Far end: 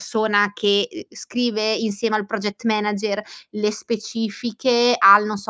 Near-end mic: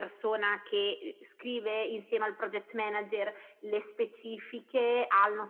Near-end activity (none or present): none